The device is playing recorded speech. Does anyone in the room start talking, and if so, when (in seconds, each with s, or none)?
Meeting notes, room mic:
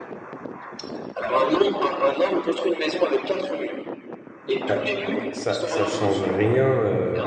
4.7 s